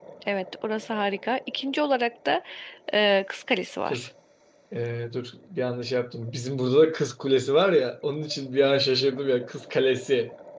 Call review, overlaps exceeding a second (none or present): none